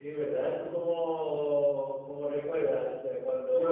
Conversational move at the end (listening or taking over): taking over